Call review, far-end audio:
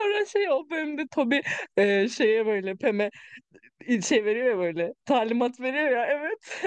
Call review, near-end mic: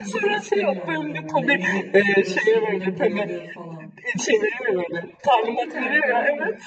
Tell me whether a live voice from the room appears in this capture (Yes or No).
Yes